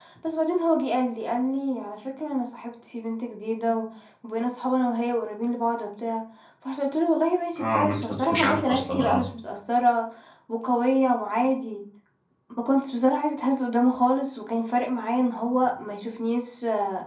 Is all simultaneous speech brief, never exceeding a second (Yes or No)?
No